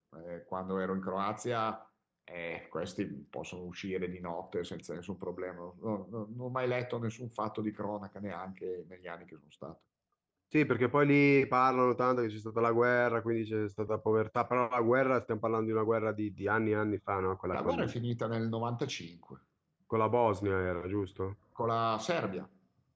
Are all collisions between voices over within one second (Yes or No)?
Yes